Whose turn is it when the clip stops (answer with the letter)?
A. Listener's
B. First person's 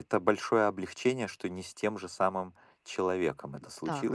A